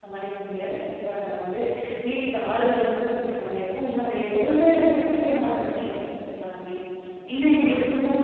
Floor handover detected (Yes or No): No